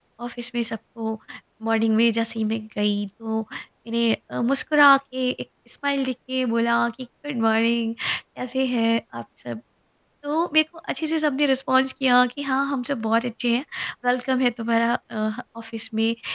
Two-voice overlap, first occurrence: none

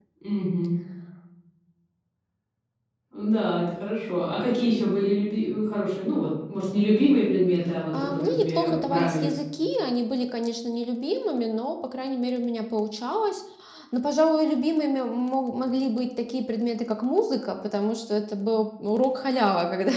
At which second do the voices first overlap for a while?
7.7 s

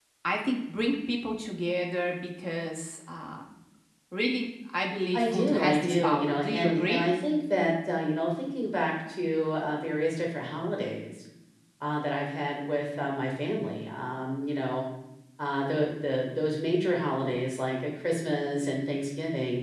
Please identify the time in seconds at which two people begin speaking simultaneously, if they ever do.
5.1 s

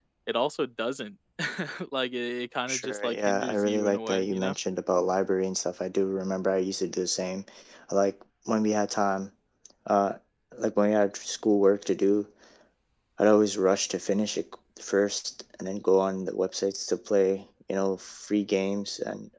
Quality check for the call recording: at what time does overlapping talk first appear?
2.7 s

